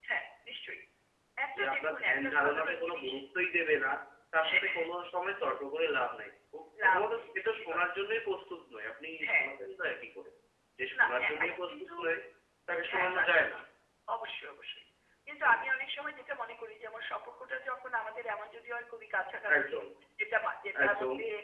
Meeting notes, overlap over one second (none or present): present